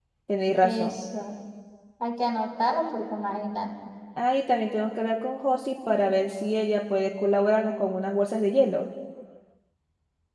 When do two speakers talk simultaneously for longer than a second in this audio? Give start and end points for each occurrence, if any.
none

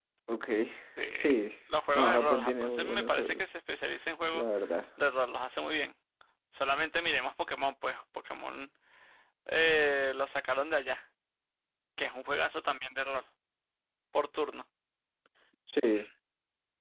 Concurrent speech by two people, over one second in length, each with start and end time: 1.9-3.5

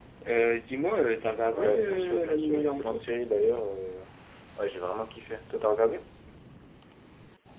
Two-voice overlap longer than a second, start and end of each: 1.5-3.0

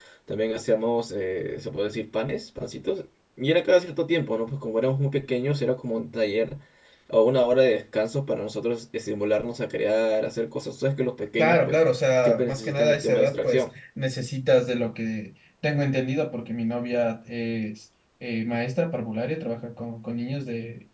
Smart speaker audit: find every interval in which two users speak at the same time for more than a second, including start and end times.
12.2-13.6

